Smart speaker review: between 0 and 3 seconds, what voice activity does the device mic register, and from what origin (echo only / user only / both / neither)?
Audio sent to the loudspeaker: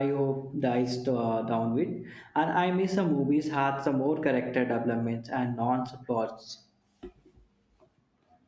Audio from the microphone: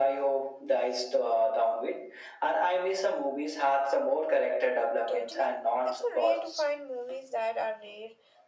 echo only